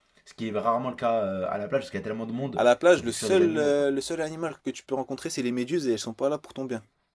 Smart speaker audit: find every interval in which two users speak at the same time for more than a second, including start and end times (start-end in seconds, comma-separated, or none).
2.6-3.9